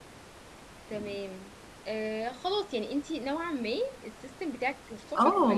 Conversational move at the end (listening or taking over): taking over